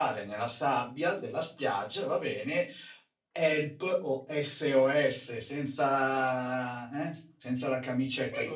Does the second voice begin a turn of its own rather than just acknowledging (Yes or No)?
Yes